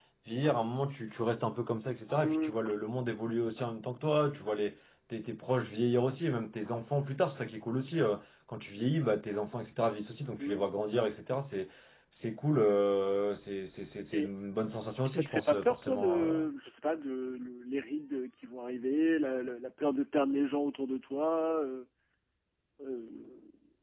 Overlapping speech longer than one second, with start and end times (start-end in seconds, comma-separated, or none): 15.0-16.4